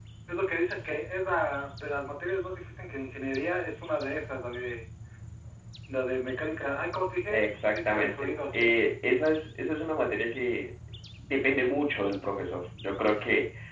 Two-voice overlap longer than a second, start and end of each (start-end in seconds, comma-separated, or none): 7.3-8.7